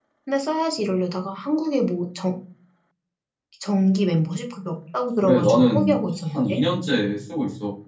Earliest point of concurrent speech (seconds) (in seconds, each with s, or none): 5.2 s